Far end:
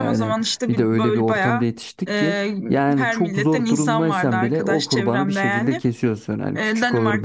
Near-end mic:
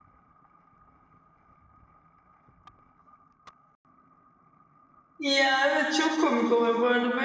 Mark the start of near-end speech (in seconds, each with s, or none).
5.2 s